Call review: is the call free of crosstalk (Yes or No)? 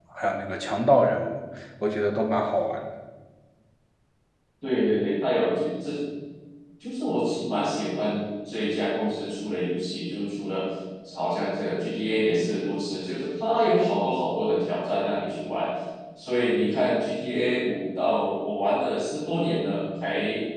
Yes